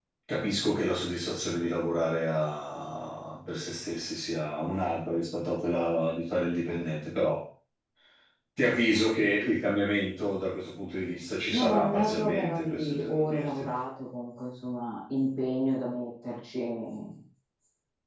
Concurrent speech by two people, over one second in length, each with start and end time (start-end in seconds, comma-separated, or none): 11.5-13.6